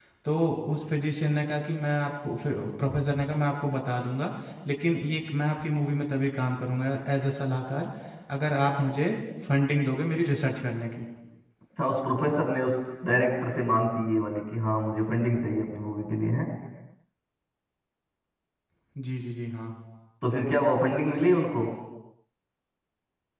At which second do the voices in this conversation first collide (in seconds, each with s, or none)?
none